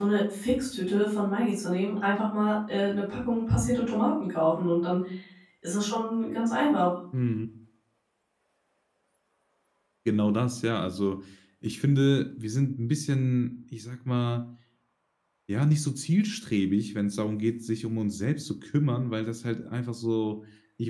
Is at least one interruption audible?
No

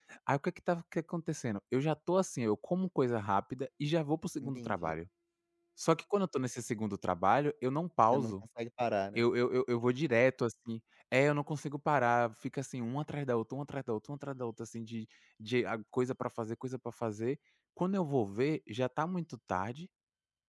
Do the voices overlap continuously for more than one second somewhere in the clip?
No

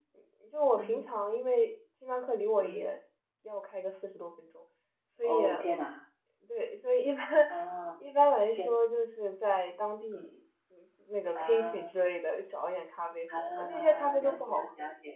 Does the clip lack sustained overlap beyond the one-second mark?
No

